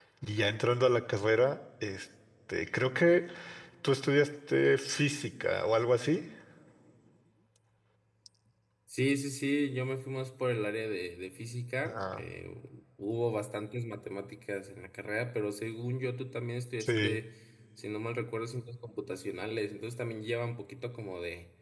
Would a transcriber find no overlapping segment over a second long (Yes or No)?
Yes